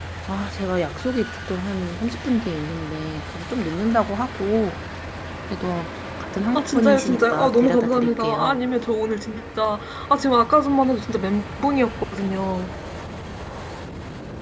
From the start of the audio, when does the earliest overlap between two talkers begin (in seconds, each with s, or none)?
6.5 s